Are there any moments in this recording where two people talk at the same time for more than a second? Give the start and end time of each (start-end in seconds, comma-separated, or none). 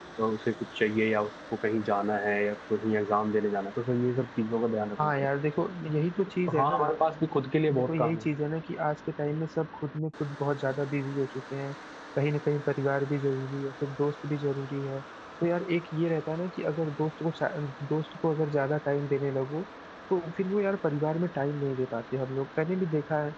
none